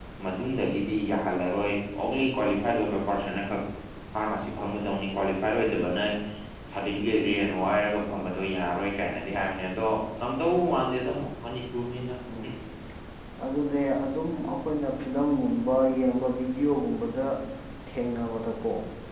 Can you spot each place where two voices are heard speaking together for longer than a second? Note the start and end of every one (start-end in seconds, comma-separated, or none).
none